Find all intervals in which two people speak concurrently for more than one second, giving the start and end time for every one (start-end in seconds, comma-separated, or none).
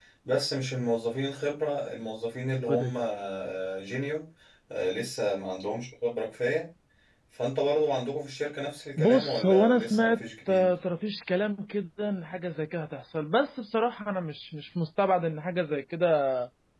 9.0-10.7